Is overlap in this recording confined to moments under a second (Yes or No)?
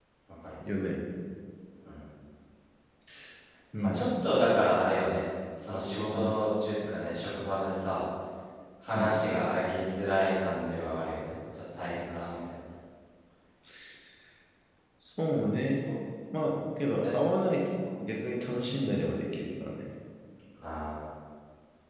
Yes